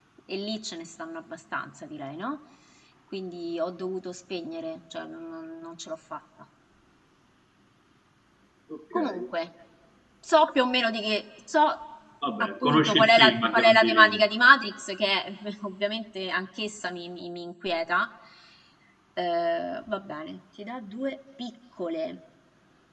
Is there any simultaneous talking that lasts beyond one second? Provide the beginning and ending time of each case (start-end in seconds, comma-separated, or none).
12.4-14.2